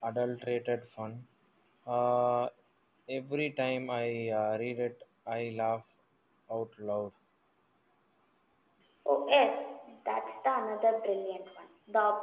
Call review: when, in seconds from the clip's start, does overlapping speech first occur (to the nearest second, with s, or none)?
none